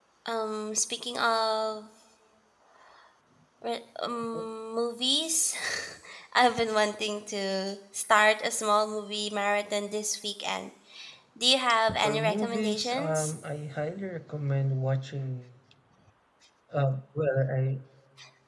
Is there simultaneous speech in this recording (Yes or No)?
Yes